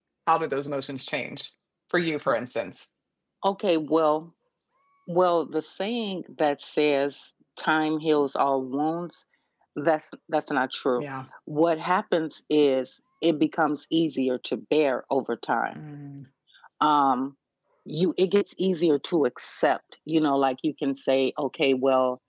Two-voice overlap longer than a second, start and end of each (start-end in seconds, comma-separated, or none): none